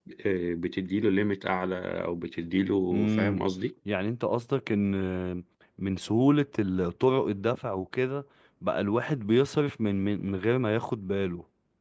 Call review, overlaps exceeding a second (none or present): none